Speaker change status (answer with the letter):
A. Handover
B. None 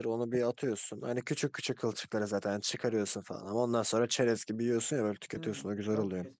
A